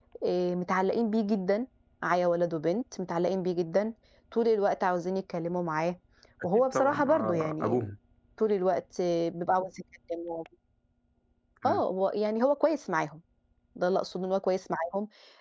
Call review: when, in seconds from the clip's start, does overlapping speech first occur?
6.5 s

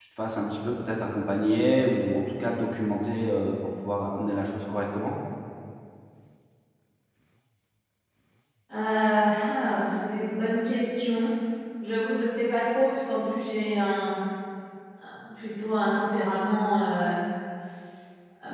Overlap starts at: none

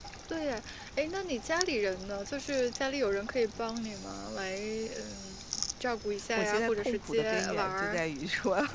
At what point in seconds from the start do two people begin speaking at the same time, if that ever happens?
6.4 s

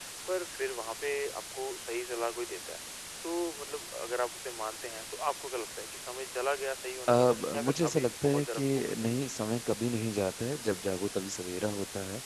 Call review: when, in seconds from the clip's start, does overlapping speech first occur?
7.1 s

